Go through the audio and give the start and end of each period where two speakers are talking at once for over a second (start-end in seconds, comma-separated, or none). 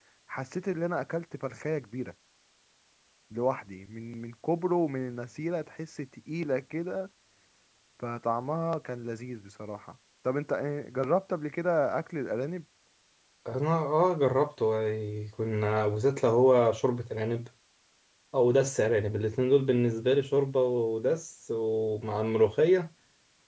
none